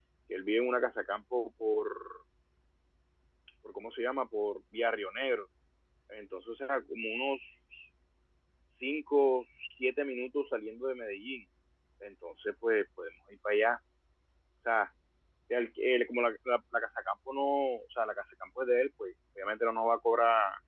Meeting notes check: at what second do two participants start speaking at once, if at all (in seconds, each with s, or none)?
none